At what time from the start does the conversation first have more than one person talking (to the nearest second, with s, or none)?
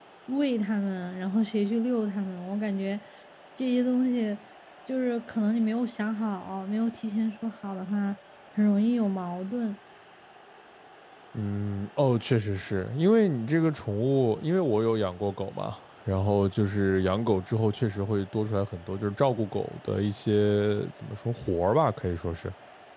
none